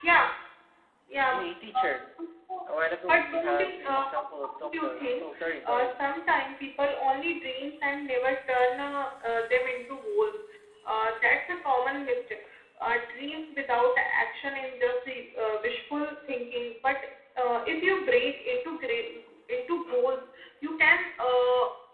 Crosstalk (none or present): present